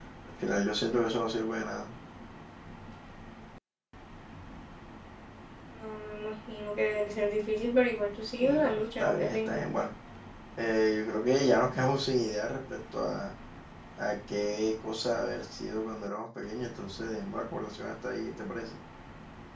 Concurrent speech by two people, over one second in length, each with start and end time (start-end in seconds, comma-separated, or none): 8.4-9.6